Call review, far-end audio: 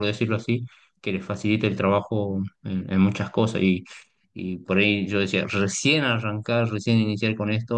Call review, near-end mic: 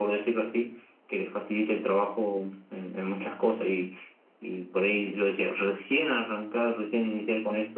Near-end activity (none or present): none